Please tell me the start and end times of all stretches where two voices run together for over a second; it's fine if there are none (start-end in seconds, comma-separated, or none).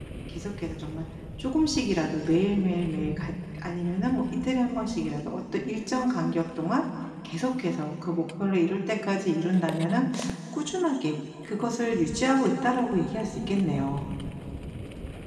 none